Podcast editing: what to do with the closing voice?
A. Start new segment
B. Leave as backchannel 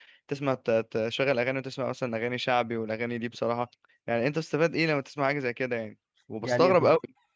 A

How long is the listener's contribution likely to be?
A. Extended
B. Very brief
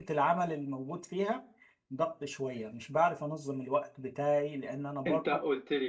A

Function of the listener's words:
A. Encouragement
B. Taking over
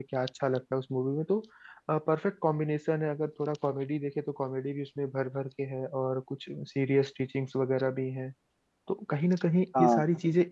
A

